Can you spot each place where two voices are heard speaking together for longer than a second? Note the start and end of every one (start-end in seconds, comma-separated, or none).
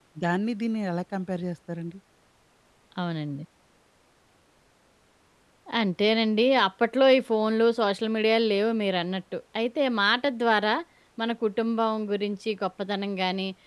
none